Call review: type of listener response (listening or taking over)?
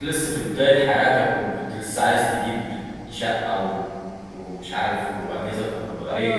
taking over